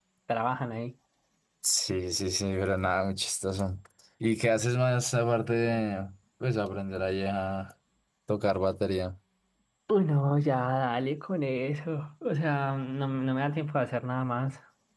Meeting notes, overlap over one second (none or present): none